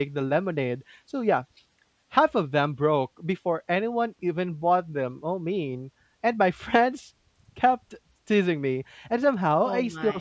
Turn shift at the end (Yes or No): No